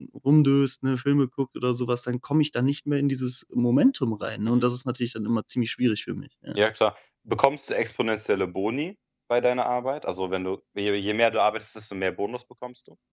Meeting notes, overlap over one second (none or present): none